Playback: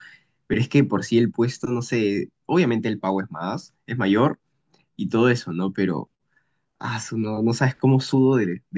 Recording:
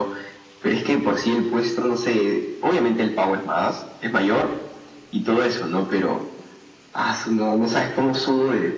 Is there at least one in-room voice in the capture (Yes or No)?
No